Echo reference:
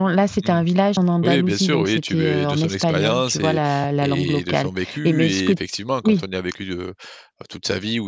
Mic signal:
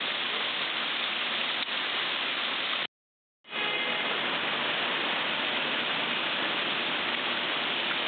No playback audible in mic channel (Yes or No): Yes